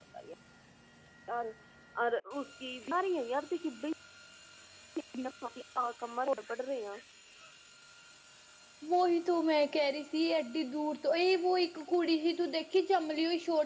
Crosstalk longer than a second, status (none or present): none